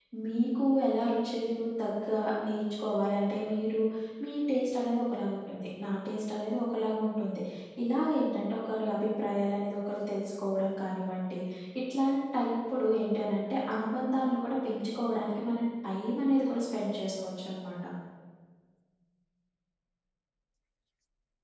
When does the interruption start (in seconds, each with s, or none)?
none